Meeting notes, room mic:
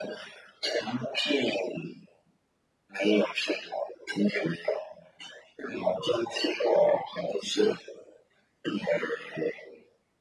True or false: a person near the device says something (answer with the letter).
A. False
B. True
A